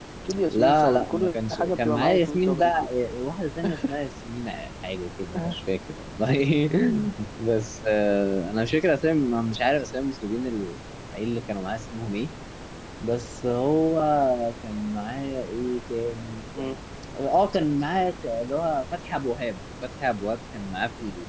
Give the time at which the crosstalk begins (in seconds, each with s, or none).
0.5 s